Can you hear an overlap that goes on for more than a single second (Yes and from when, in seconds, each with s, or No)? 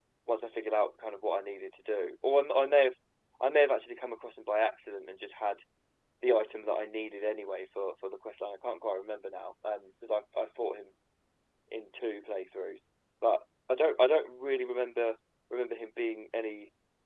No